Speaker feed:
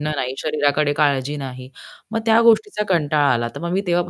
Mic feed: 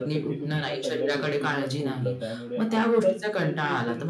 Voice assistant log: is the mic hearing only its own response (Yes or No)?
No